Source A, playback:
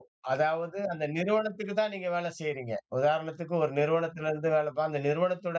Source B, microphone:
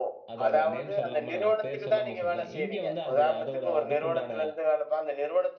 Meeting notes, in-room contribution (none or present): present